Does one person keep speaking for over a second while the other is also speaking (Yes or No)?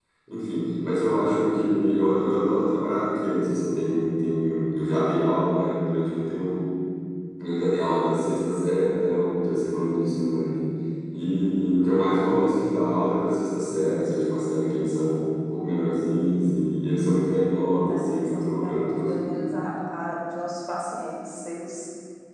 Yes